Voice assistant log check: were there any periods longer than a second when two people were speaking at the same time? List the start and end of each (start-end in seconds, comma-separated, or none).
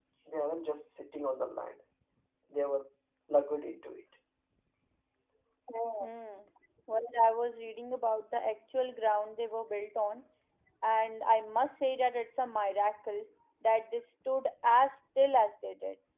none